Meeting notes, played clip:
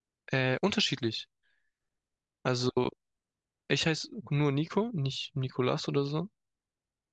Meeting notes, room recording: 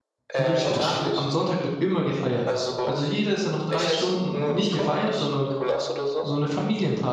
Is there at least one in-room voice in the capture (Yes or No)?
Yes